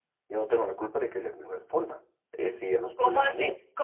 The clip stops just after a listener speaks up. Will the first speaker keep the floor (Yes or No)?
No